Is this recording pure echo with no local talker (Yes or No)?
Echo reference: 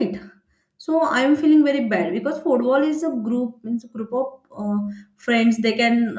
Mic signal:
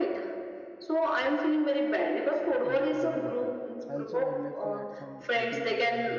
No